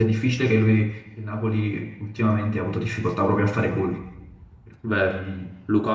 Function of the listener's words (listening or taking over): taking over